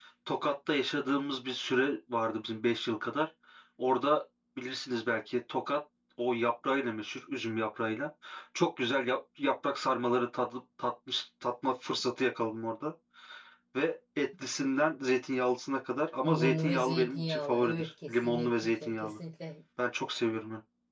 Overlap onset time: 16.2 s

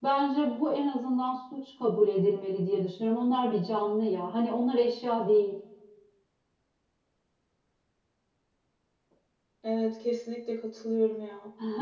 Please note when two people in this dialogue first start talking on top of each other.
none

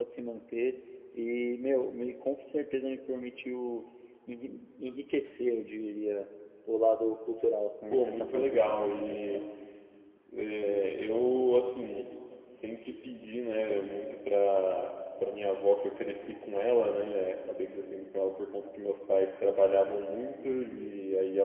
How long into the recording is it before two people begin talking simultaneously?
7.9 s

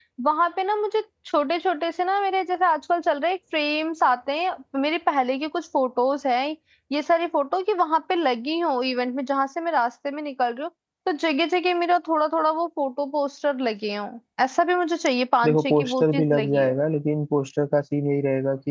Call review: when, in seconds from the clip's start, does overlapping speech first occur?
15.4 s

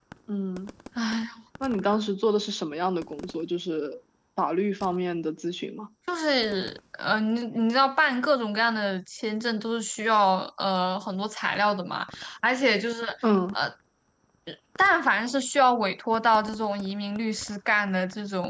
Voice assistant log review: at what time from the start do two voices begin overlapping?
none

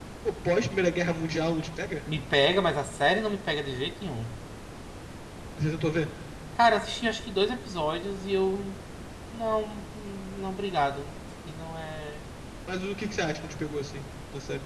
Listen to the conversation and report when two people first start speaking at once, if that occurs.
none

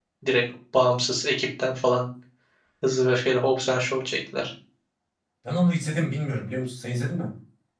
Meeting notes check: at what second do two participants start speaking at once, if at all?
none

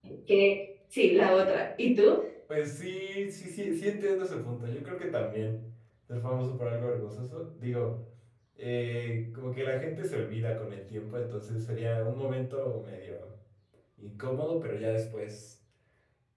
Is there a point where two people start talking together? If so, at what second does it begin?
none

